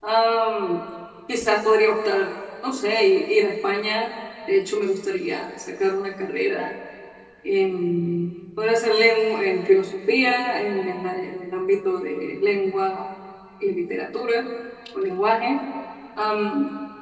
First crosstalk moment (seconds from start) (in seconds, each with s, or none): none